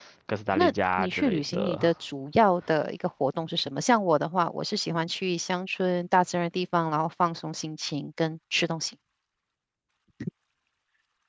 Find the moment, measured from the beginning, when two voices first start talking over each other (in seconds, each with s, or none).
0.5 s